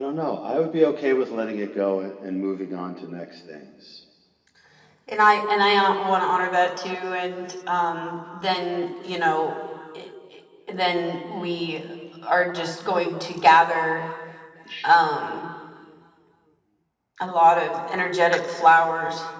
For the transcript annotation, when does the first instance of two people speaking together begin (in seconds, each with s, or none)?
none